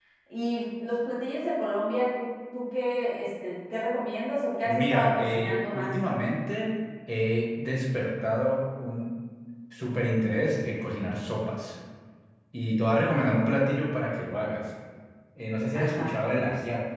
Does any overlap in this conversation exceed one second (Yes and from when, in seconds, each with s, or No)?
Yes, from 4.6 s